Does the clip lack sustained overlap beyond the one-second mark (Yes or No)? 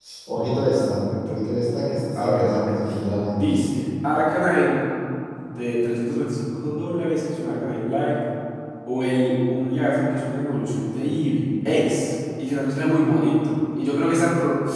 Yes